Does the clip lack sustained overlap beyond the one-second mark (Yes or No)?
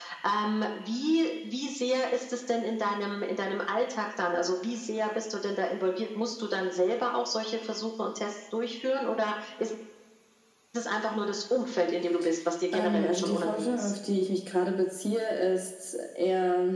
No